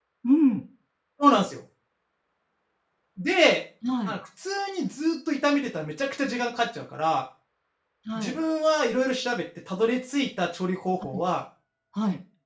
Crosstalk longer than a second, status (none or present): none